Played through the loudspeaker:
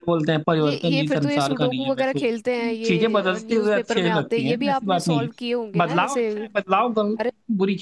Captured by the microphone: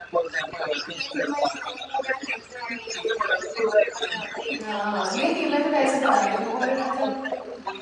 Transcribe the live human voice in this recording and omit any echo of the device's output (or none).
हाँ, नहीं नहीं मैं तो वैसे बता रही हूँ और मतलब